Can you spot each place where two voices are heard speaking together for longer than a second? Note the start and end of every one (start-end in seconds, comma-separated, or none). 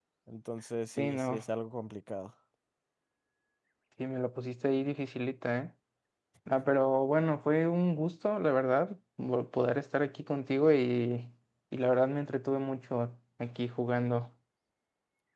none